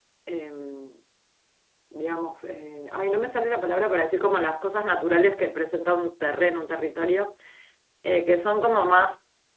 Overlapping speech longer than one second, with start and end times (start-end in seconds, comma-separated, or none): none